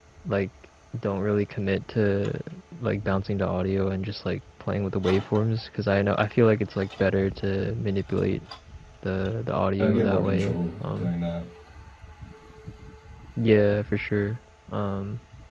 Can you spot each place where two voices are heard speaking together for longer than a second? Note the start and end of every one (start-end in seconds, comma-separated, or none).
9.8-11.1